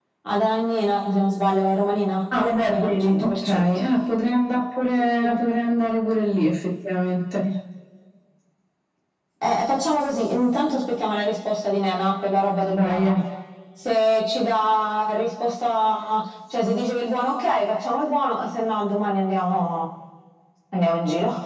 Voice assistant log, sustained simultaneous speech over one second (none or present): present